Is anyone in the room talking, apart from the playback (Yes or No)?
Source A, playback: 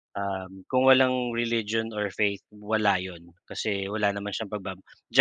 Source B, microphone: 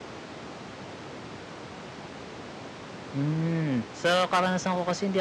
Yes